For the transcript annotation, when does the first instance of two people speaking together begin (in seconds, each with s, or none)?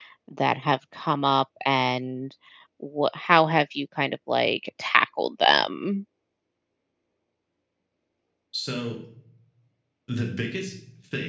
none